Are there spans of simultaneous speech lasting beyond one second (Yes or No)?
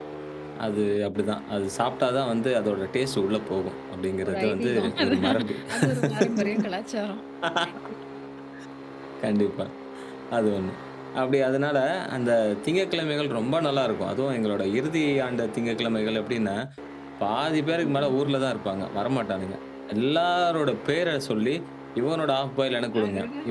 Yes